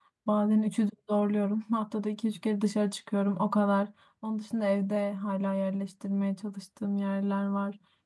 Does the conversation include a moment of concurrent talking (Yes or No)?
No